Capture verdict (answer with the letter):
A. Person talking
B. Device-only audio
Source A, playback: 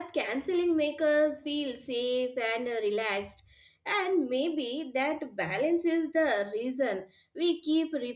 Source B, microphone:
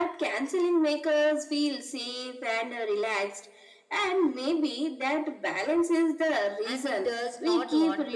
A